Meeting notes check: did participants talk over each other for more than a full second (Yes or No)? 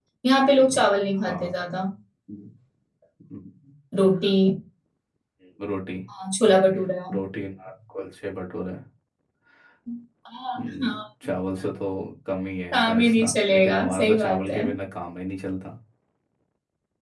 Yes